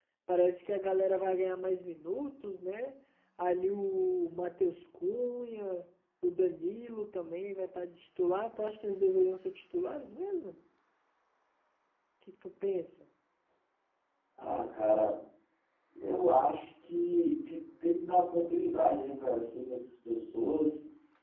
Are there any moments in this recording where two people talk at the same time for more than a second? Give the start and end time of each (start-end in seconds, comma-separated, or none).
none